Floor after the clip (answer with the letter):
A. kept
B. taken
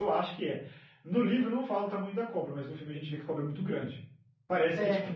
A